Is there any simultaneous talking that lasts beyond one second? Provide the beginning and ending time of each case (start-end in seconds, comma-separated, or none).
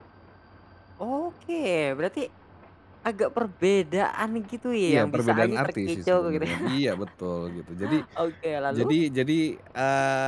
4.9-6.8